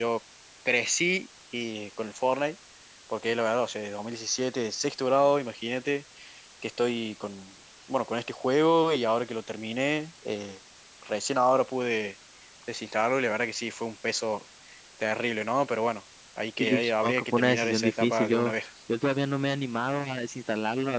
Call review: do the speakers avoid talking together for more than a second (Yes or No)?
No